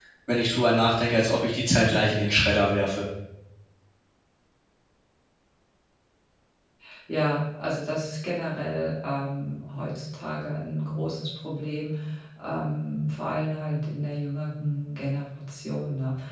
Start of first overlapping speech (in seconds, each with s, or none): none